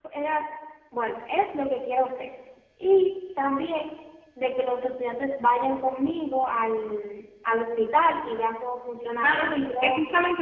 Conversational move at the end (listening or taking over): taking over